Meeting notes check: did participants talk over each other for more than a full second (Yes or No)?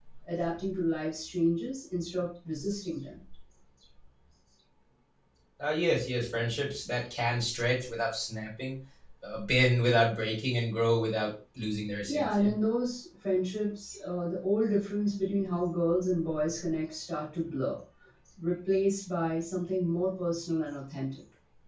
No